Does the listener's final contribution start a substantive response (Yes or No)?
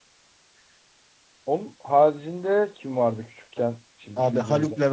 Yes